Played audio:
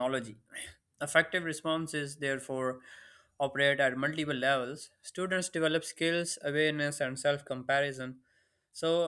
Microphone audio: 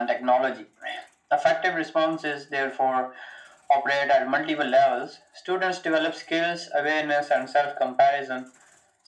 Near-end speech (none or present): none